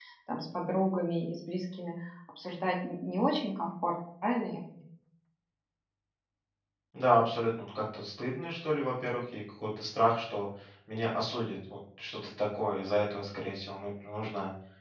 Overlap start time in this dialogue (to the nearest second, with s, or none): none